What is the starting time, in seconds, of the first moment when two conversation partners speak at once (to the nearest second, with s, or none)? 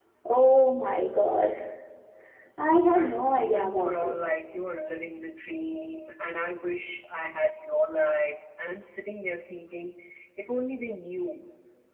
3 s